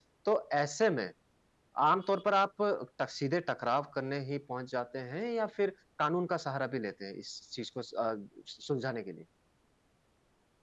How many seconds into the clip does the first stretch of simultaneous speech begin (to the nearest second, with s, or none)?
none